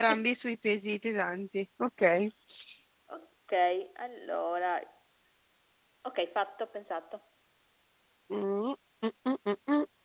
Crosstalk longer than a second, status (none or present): none